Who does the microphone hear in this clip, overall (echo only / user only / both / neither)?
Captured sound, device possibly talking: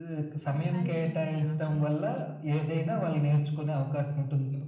both